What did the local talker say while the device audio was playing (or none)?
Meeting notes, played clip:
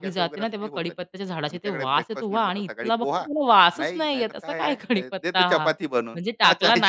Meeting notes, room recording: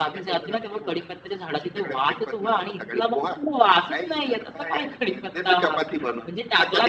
none